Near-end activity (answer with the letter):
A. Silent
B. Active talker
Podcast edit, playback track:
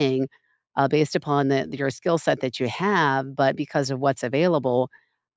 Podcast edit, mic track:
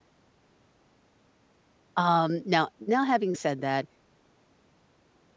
B